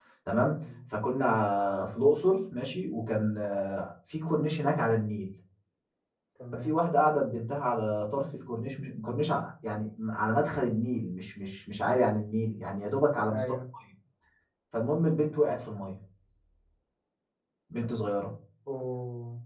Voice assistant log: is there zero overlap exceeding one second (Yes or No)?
Yes